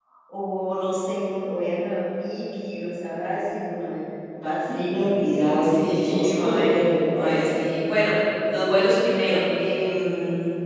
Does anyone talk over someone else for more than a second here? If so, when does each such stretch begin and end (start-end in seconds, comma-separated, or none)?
5.4-6.7